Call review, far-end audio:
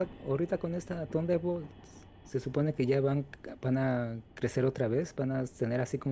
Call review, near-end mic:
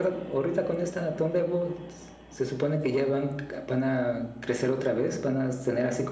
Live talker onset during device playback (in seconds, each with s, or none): none